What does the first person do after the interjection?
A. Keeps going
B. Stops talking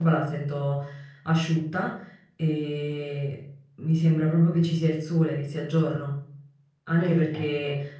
A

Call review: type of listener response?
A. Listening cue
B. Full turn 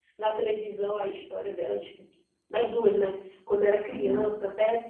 A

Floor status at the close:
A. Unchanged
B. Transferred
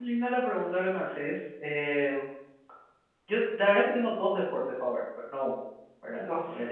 A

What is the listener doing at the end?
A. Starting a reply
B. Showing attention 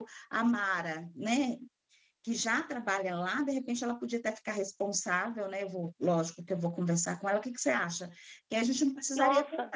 B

